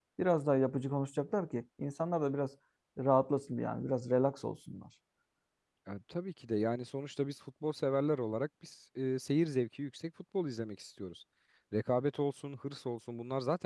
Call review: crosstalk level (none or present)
none